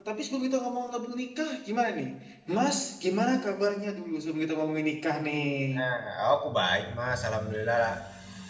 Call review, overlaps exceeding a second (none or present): none